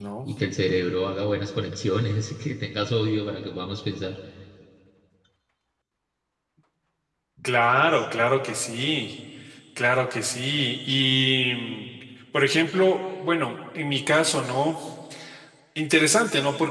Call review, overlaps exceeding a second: none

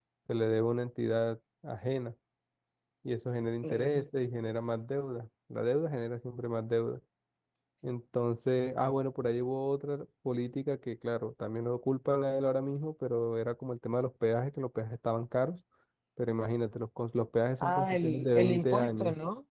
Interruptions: present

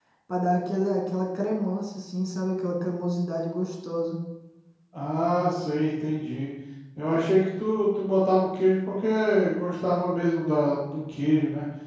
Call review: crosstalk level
none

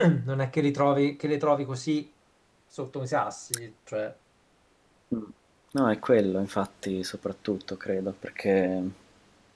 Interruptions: none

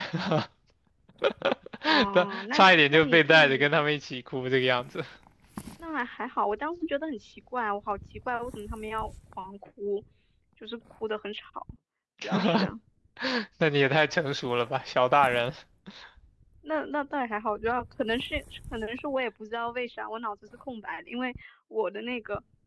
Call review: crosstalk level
present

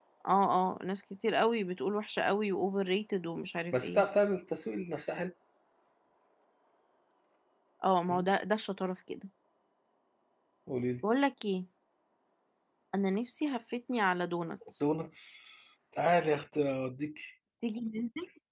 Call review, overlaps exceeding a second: none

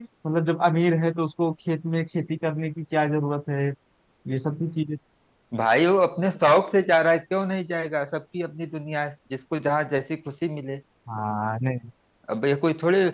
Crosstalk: none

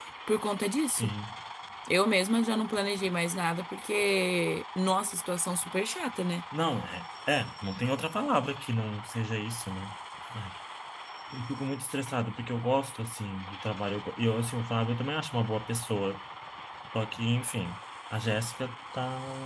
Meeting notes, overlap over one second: none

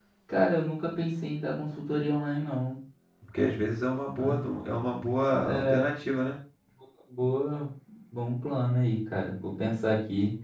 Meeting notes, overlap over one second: none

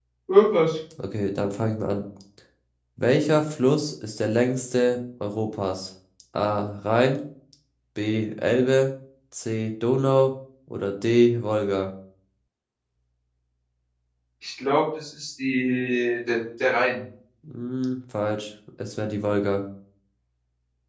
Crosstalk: none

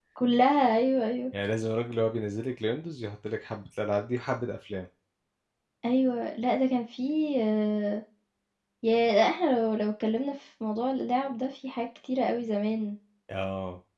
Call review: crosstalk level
none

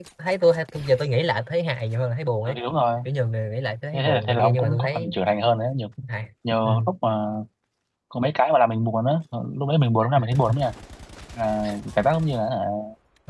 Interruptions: present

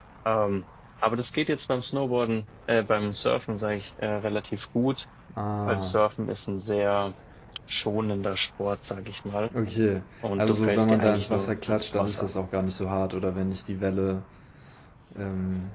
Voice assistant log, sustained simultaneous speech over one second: present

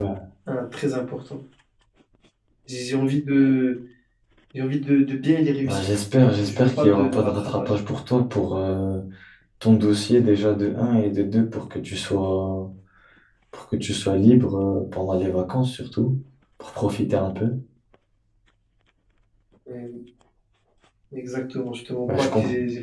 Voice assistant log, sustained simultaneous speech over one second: present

